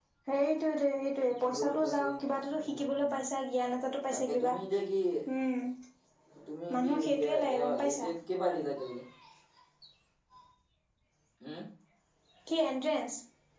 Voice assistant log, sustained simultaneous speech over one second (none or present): present